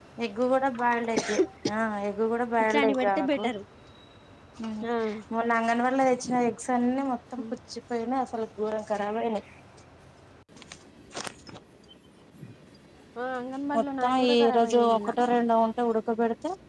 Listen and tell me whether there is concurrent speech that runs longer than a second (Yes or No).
Yes